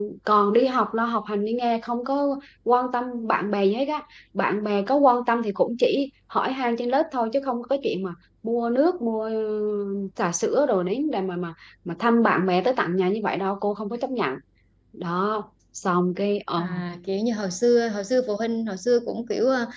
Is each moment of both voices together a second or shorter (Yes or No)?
Yes